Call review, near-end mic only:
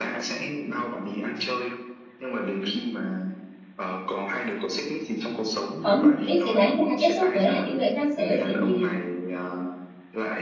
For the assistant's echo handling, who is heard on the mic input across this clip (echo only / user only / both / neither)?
both